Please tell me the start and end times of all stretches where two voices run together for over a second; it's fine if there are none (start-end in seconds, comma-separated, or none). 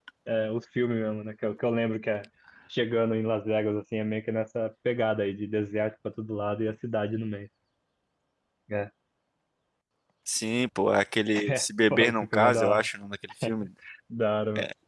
11.3-12.9